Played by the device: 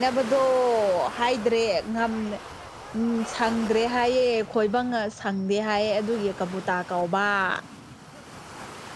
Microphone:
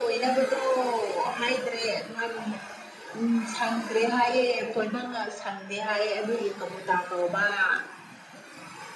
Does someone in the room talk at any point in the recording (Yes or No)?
No